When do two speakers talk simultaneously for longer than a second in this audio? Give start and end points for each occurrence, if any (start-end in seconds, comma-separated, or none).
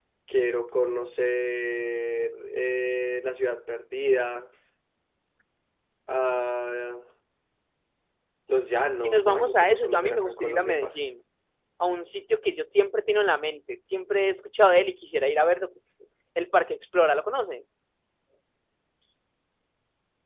9.0-11.0